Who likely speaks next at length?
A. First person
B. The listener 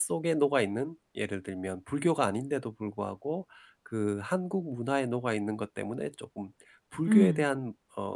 A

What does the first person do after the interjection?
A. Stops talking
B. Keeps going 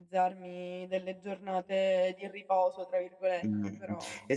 A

